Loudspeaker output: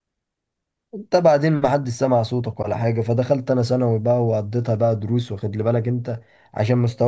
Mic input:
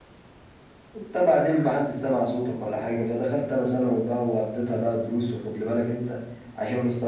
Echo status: present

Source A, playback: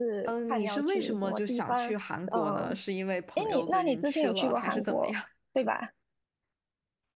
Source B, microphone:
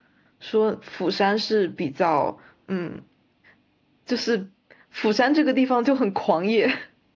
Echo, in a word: none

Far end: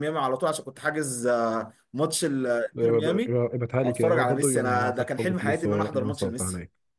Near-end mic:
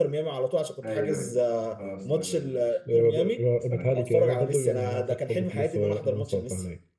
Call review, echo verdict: present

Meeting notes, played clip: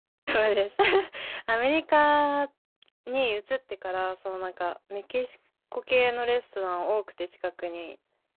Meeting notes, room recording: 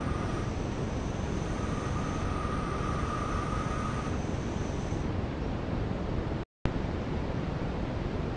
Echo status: none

